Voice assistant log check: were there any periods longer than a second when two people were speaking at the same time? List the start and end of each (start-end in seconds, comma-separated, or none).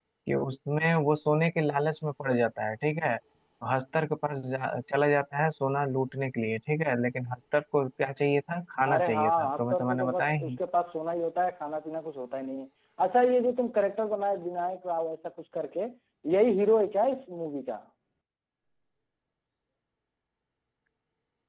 8.9-10.5